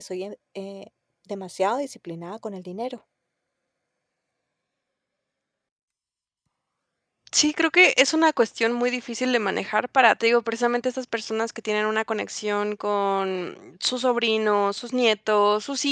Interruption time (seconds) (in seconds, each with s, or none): none